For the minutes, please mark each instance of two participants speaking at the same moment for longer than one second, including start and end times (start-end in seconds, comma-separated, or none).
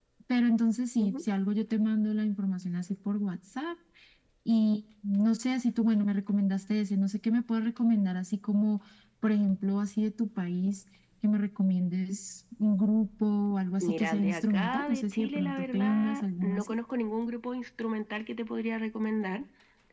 13.8-16.7